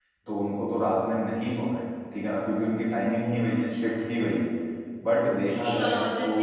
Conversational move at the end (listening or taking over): taking over